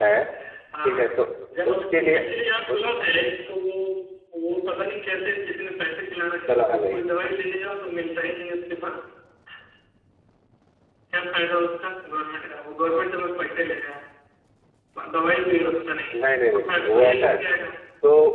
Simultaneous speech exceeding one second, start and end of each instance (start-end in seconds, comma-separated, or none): 16.1-17.4